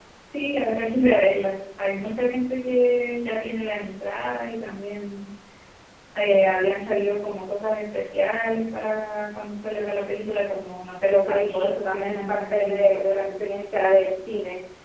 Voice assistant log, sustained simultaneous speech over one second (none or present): present